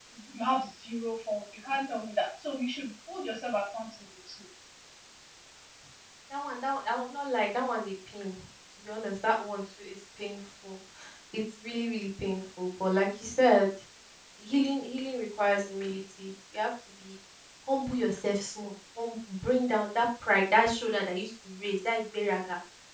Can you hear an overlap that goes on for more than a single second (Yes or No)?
No